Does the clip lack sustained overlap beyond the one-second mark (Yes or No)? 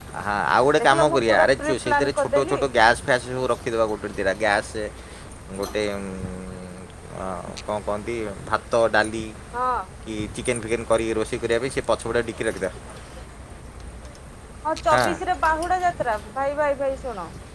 No